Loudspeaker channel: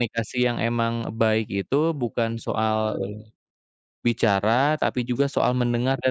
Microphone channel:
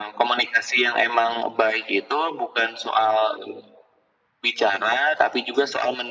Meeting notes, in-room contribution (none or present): none